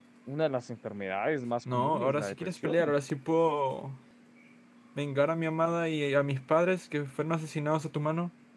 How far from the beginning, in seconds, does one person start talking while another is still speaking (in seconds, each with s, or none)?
1.6 s